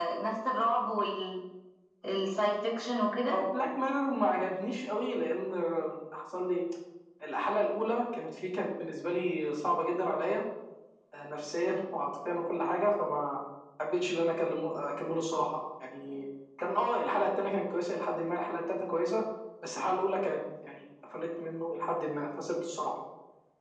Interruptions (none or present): none